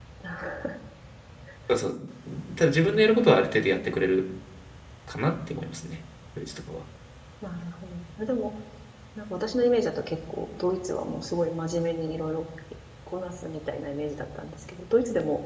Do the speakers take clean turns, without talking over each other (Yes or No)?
Yes